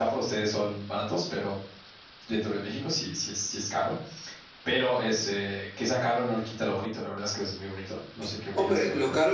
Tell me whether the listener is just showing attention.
No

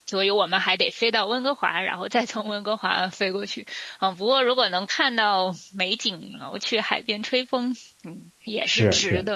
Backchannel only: No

